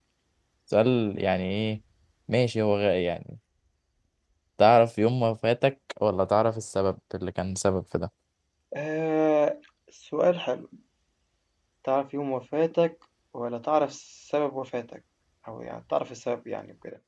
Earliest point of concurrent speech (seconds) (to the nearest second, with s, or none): none